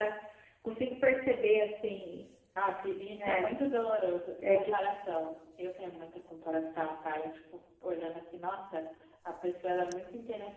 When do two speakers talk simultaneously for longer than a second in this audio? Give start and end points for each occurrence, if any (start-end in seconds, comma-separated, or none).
none